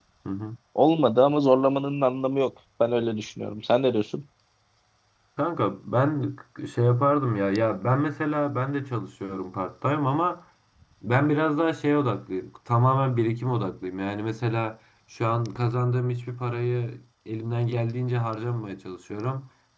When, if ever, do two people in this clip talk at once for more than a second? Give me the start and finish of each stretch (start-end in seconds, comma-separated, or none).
none